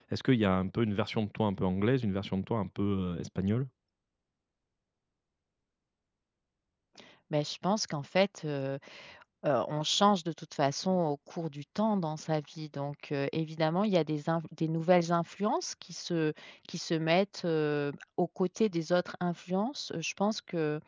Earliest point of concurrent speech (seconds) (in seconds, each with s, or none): none